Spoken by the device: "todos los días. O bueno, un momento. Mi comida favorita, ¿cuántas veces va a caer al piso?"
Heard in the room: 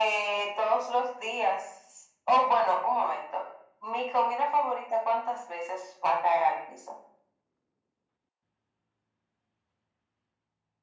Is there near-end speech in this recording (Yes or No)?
No